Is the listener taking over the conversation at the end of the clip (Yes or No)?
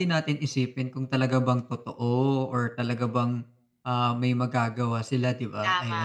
Yes